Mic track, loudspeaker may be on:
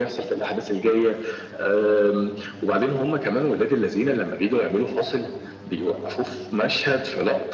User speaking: No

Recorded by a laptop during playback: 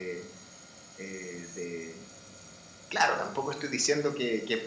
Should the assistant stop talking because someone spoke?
No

